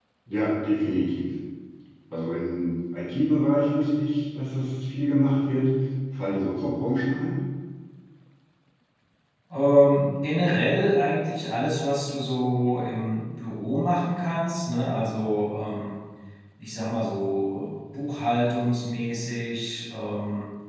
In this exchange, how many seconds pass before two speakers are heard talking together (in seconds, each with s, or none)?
none